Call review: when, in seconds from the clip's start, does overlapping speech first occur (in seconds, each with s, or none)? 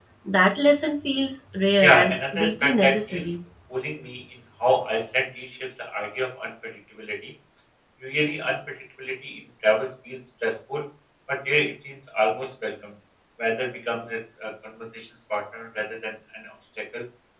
1.8 s